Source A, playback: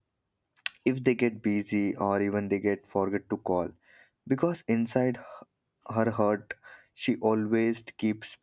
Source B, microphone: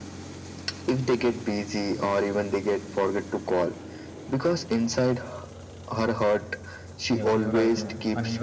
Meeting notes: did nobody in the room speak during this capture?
No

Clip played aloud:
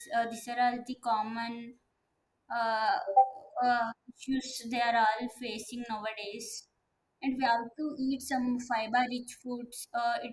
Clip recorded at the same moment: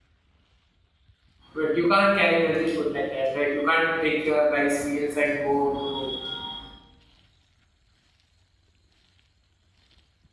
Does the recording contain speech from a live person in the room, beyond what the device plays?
Yes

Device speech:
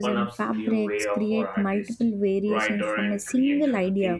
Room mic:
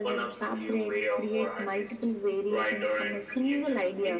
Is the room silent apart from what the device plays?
Yes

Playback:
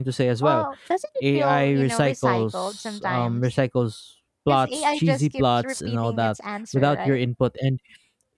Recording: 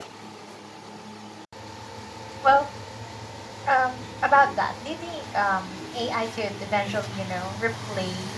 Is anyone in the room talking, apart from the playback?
Yes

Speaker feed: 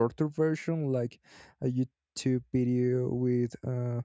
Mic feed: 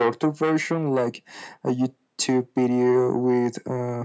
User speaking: No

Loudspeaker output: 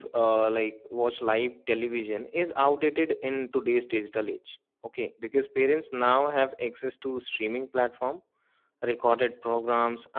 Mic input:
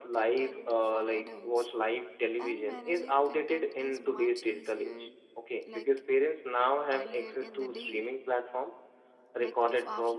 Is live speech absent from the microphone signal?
No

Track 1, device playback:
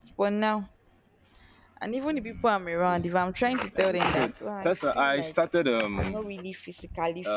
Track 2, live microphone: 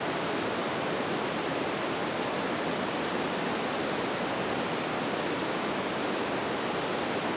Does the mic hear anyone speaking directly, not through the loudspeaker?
No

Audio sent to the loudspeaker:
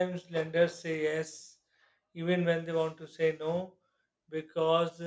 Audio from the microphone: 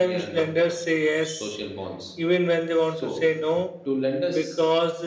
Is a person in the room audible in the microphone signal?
Yes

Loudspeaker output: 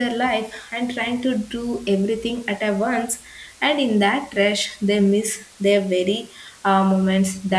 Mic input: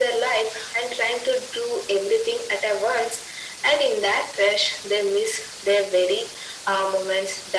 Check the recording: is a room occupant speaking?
No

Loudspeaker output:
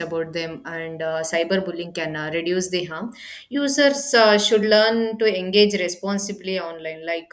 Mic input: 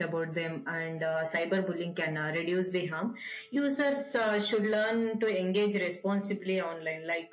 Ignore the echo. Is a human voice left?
No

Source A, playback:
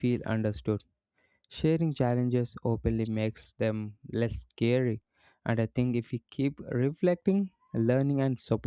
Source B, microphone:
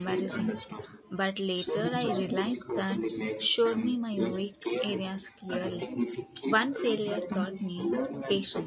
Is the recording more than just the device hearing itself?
Yes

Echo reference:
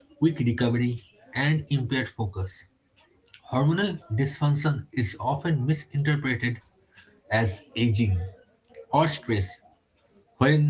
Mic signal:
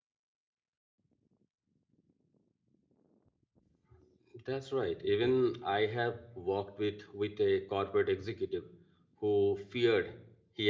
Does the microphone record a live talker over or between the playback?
Yes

